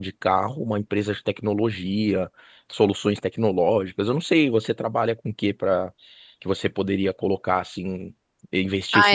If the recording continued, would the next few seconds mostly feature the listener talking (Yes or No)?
Yes